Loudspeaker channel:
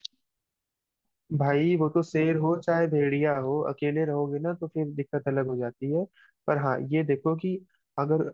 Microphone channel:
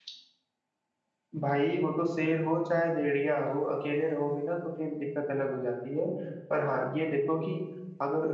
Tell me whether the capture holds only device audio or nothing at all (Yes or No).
Yes